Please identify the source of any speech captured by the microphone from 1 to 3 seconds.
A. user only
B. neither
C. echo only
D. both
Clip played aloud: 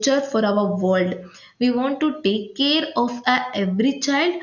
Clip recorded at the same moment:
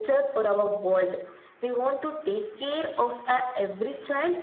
C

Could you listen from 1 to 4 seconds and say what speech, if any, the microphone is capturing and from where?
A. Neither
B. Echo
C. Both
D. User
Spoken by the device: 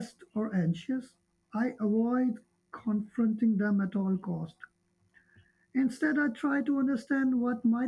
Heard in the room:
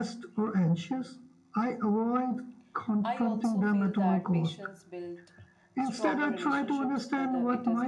C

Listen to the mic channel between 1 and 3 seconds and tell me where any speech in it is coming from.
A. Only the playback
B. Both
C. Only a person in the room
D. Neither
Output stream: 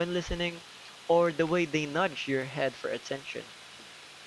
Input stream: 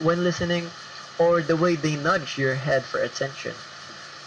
A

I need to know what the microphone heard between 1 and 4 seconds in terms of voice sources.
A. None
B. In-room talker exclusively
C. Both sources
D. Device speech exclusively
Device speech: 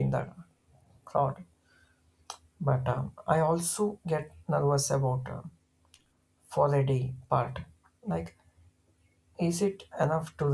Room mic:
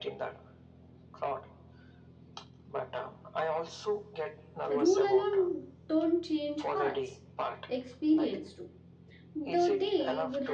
D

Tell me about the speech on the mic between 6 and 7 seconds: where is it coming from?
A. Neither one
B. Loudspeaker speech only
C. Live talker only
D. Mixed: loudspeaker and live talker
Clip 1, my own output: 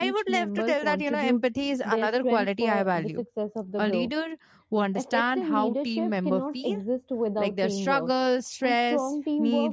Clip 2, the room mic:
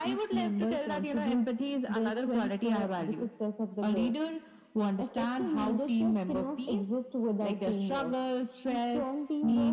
B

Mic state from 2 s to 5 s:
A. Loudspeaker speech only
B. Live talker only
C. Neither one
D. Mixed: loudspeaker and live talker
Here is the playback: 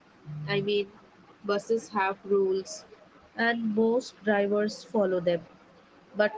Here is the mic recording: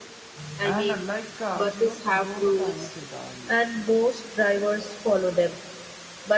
D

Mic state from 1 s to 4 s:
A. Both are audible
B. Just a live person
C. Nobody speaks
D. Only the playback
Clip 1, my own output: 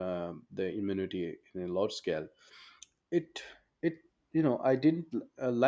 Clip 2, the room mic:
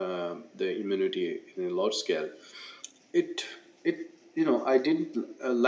D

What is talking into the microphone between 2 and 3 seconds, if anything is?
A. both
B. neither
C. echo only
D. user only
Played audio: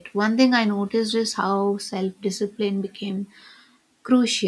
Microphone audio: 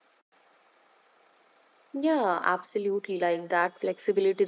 D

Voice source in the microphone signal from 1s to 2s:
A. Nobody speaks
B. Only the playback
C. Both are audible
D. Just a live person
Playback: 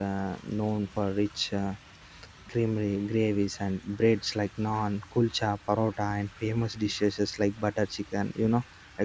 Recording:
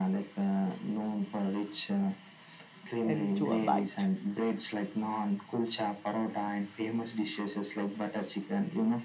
B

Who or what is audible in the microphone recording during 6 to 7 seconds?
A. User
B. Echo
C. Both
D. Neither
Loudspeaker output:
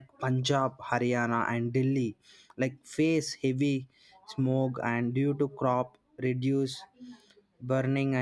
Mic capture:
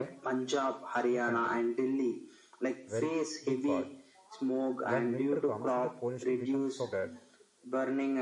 C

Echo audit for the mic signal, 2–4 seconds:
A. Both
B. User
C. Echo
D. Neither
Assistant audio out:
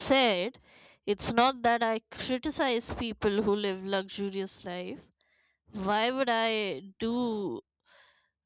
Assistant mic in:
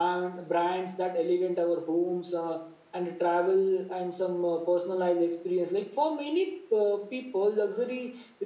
B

